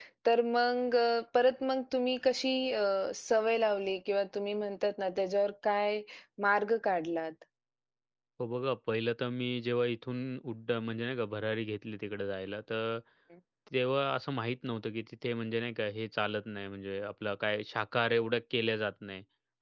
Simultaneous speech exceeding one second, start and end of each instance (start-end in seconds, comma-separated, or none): none